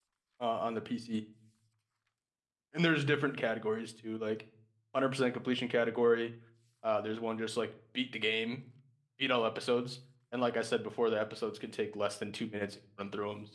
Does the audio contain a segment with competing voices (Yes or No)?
No